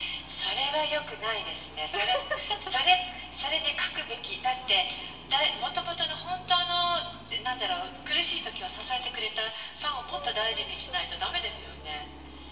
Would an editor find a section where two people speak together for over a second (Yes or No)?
Yes